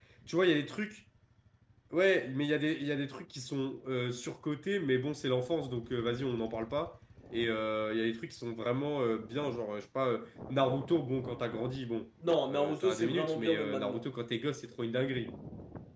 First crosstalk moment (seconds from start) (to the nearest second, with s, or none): 12 s